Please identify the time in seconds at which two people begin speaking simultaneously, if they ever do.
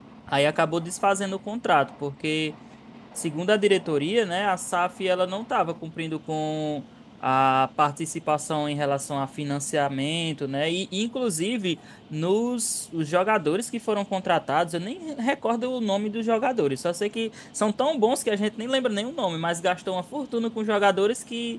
none

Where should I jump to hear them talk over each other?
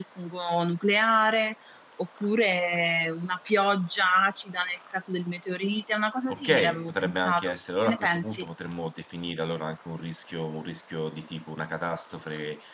6.3 s

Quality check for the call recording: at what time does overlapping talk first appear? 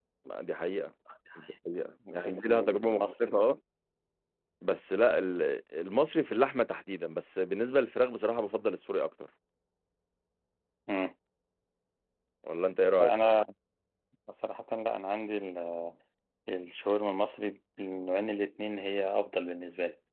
2.1 s

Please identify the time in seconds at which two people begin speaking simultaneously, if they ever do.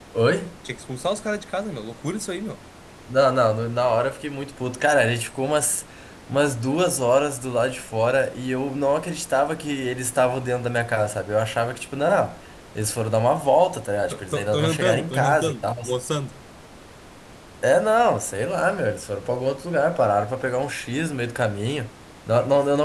14.1 s

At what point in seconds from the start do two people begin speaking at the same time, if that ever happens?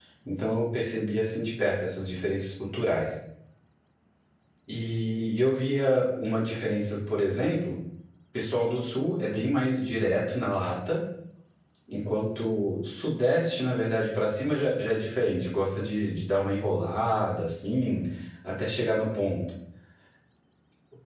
none

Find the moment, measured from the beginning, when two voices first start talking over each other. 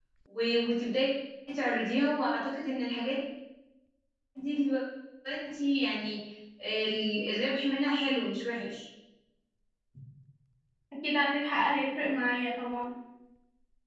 none

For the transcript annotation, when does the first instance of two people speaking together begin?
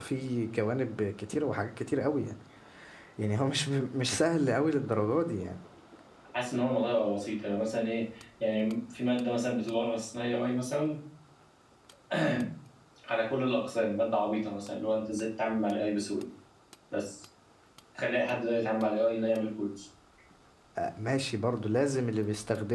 none

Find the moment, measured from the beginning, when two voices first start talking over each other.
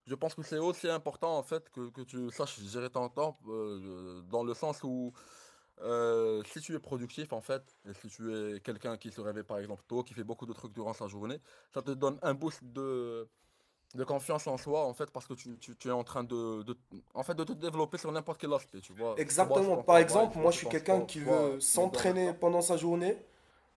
19.2 s

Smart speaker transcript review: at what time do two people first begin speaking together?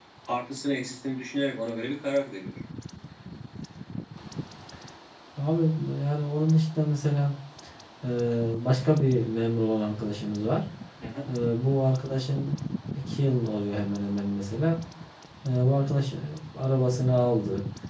none

